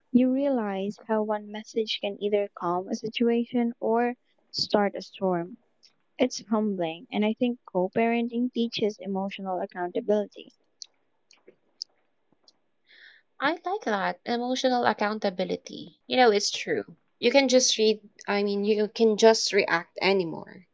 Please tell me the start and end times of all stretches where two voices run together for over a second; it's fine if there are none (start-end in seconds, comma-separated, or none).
none